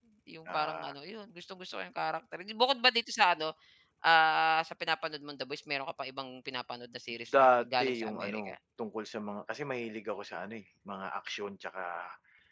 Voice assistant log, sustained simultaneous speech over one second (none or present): present